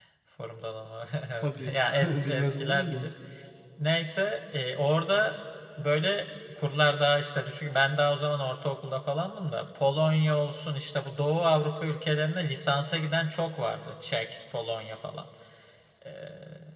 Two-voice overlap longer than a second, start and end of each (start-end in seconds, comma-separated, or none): 1.4-3.1